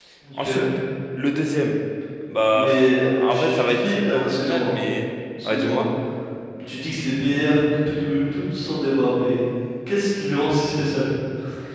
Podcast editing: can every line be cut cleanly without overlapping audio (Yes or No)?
No